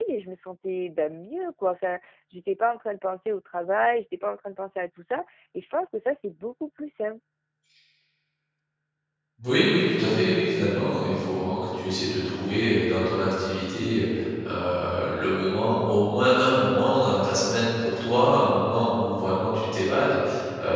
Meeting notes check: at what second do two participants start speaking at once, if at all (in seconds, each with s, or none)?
none